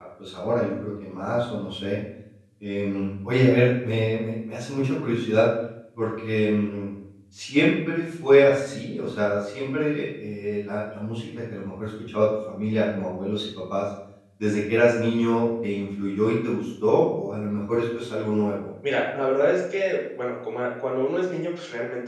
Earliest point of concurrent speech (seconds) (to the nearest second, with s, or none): none